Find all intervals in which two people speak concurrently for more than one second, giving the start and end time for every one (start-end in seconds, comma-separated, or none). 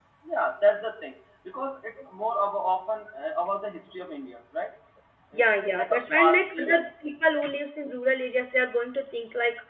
5.4-6.8